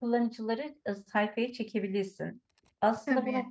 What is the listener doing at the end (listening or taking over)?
listening